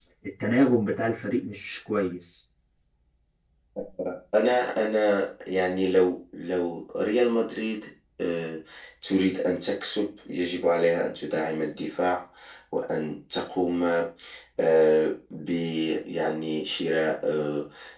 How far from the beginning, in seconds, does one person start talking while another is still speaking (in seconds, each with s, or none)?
none